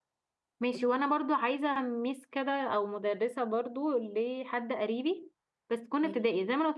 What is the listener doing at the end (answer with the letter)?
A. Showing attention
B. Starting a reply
A